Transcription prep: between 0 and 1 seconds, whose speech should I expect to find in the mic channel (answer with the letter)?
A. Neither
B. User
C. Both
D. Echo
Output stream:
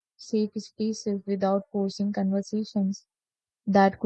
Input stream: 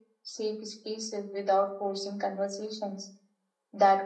D